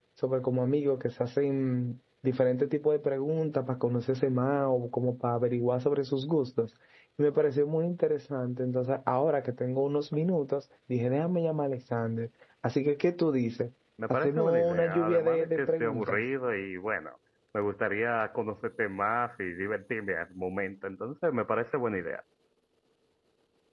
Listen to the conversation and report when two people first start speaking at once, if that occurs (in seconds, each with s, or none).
14.1 s